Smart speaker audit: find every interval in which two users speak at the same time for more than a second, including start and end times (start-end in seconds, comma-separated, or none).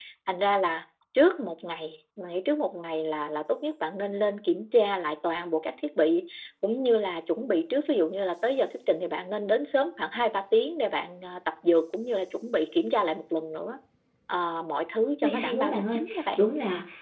15.2-16.4